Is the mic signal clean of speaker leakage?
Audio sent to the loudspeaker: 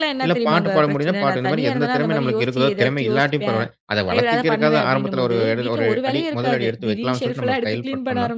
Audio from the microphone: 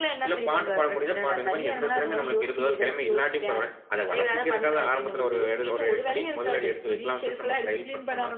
No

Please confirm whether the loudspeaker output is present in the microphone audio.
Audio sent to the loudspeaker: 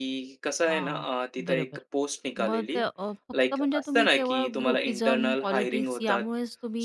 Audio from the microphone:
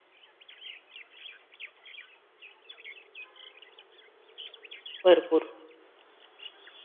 No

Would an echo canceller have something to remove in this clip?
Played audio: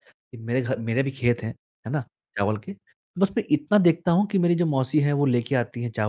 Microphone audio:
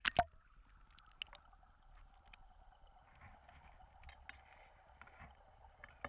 No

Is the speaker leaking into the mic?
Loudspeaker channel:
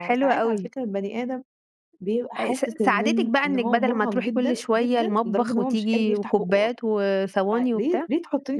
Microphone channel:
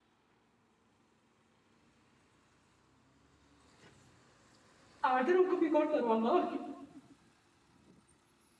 No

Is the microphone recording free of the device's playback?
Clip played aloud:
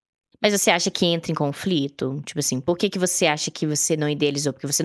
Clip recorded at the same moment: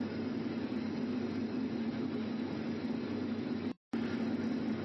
Yes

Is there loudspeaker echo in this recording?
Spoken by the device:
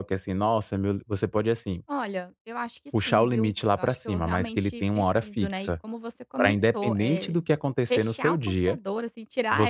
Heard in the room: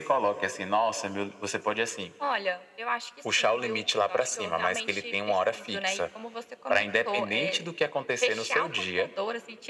Yes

